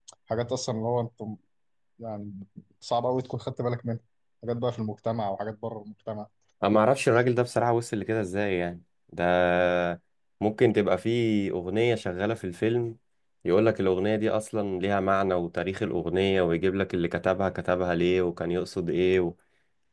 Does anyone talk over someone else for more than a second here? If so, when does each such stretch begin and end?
none

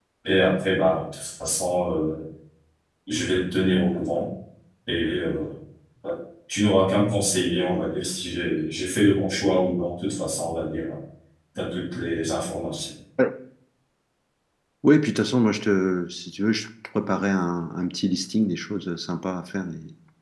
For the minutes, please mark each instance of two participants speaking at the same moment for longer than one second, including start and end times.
none

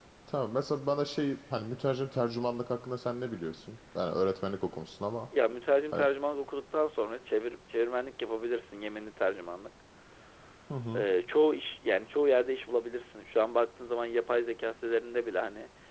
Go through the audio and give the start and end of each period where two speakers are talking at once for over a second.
none

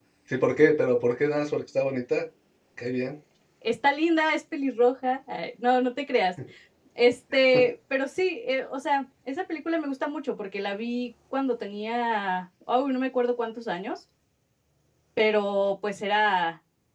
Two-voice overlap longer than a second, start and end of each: none

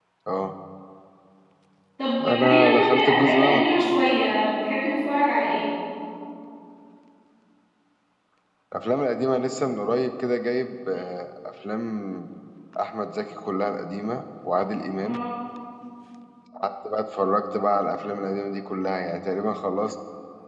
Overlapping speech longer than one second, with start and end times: 2.2-3.8

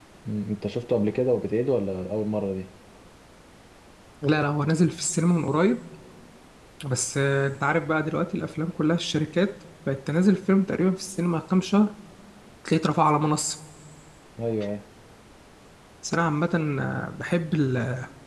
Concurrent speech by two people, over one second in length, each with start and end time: none

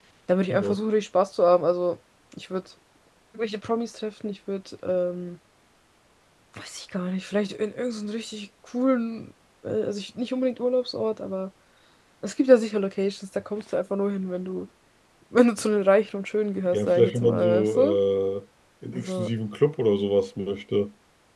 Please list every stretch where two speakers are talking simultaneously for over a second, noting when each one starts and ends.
16.7-18.0

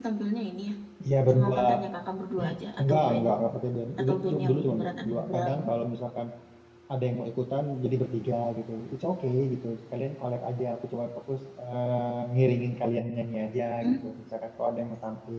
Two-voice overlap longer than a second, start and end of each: 4.0-5.5

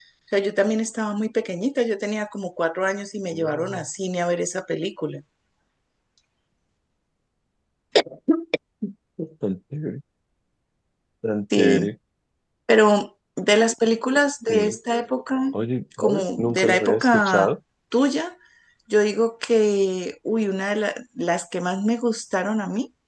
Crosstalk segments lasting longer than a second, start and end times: 16.0-17.5

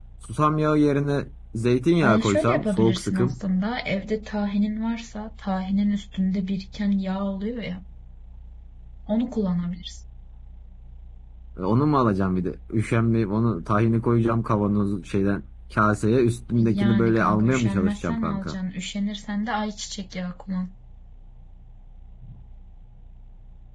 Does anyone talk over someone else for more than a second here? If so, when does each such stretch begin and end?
2.0-3.4, 16.6-18.6

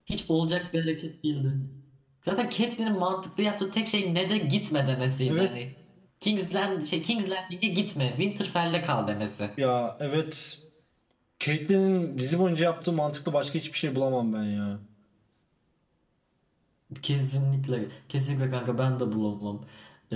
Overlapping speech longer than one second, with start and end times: none

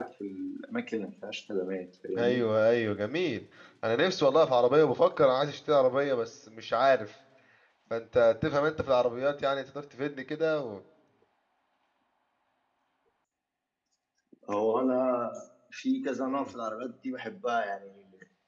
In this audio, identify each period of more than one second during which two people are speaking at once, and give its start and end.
none

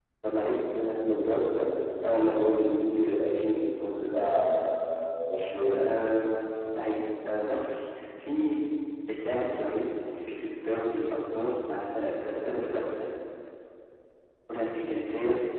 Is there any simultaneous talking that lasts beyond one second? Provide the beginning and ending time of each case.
none

